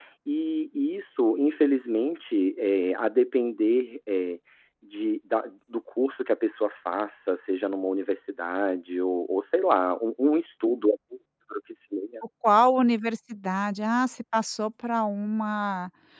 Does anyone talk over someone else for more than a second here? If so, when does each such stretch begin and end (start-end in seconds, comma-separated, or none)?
none